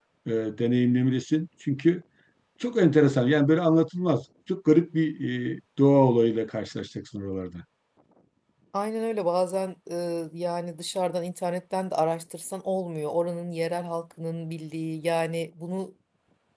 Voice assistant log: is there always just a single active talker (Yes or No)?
Yes